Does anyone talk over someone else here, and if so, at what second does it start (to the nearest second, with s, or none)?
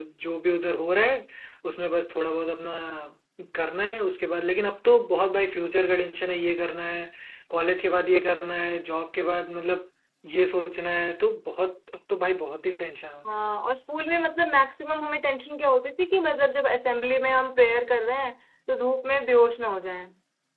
none